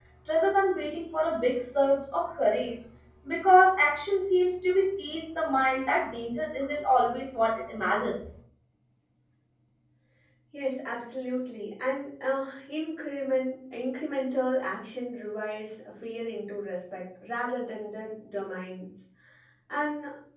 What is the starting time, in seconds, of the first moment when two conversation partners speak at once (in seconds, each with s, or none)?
none